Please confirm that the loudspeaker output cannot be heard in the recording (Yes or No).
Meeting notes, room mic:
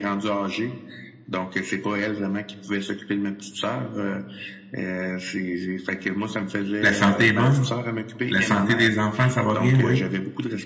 No